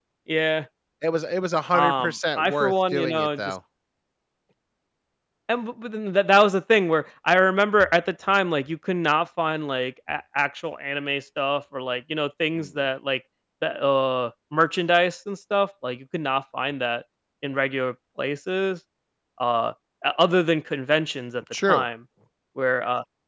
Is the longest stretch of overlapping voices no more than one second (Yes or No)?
No